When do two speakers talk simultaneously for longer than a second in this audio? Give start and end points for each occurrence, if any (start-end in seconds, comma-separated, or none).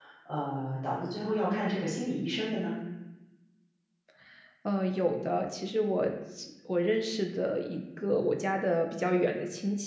none